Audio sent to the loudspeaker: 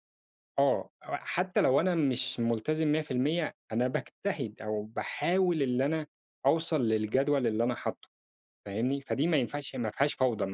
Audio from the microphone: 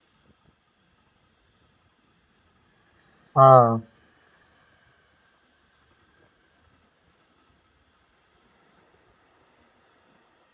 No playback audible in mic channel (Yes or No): Yes